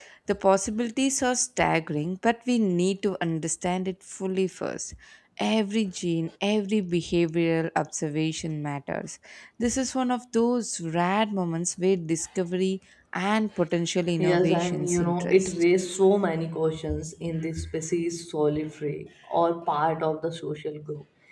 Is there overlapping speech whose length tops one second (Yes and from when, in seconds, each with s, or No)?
Yes, from 14.2 s